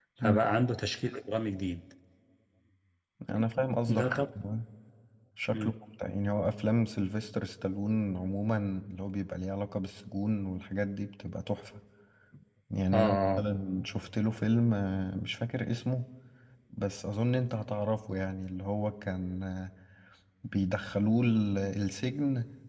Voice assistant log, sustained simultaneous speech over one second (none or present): none